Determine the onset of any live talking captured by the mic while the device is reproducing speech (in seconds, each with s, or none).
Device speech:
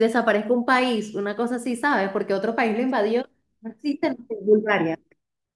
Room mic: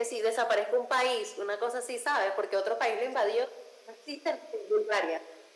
none